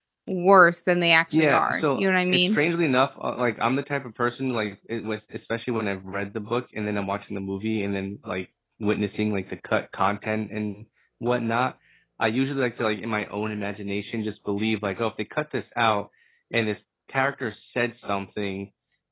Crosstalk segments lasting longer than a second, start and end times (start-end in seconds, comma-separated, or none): 1.3-2.6